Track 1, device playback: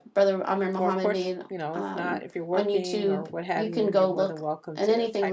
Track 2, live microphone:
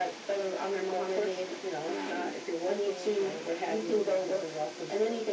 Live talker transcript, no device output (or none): none